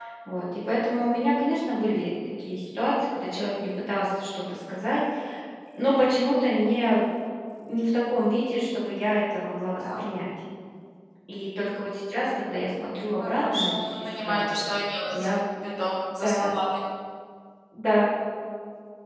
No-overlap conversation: No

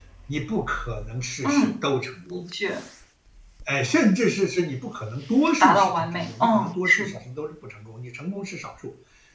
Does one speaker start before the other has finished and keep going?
Yes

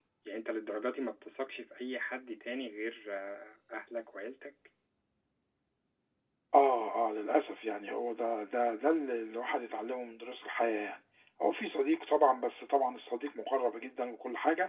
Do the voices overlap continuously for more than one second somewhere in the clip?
No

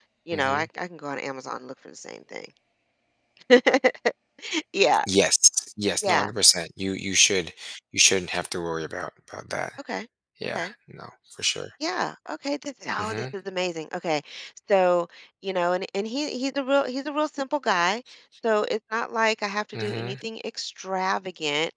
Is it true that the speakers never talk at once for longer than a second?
Yes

